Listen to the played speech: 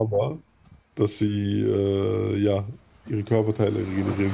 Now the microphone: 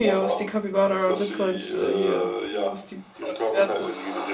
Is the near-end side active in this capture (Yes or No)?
Yes